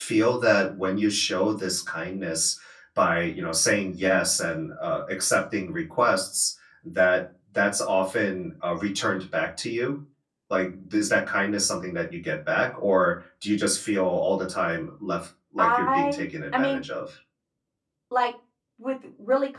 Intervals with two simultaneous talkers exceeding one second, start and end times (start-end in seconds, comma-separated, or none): 15.6-16.8